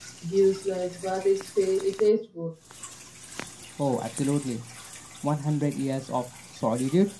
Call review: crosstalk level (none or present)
none